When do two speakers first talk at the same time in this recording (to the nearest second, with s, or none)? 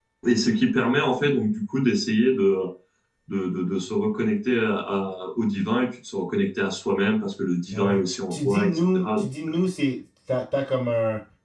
8 s